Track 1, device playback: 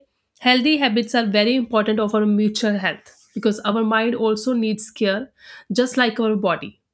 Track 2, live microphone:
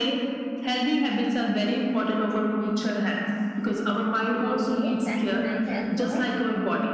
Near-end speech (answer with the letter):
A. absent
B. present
B